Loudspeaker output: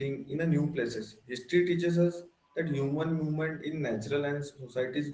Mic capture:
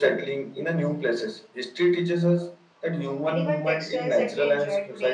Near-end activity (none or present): present